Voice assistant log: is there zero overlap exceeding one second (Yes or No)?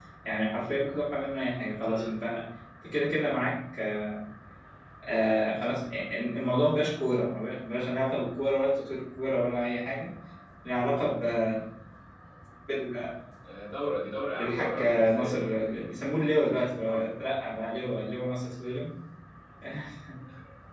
No